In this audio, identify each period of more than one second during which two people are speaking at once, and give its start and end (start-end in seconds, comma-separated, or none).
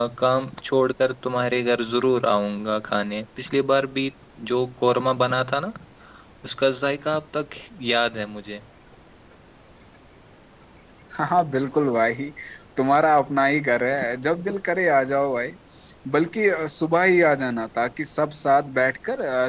none